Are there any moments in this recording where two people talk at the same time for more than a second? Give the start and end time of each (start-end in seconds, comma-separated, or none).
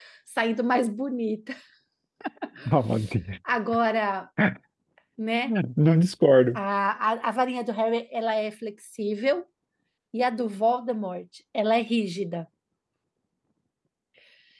none